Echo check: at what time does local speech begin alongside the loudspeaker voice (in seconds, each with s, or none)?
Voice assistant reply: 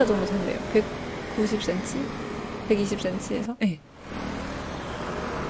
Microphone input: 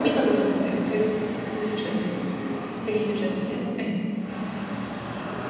none